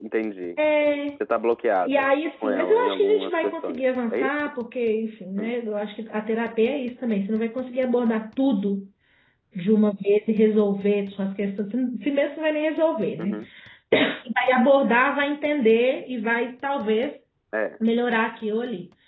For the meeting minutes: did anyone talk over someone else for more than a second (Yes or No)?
Yes